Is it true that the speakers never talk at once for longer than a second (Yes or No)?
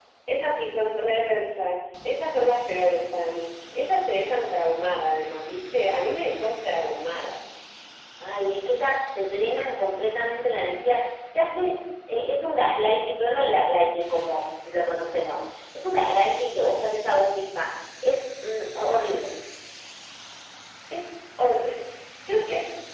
Yes